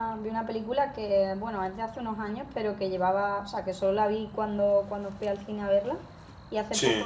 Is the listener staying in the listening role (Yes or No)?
Yes